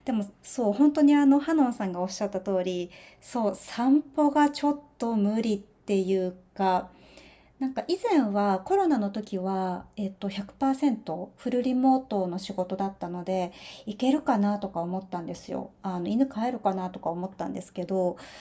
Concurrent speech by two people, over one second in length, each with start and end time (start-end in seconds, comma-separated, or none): none